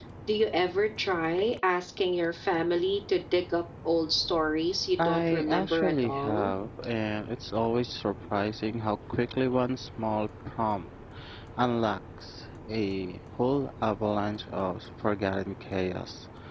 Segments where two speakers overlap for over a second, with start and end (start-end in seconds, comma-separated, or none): 5.0-6.5